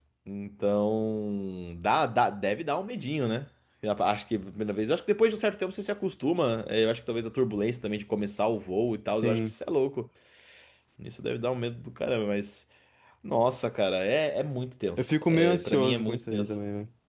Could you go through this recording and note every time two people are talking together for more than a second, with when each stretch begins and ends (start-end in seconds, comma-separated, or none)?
15.0-16.5